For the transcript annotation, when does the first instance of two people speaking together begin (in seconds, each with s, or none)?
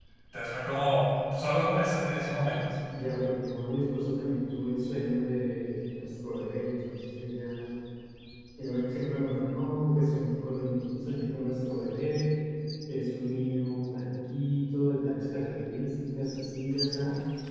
none